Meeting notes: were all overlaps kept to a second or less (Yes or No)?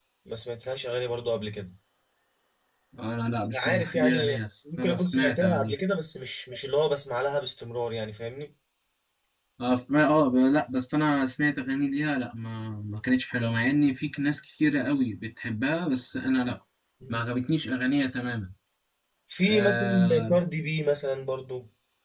No